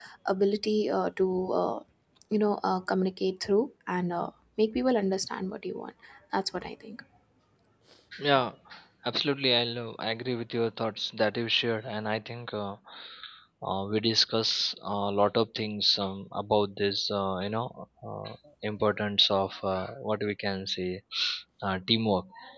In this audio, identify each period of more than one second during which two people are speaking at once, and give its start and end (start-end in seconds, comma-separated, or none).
none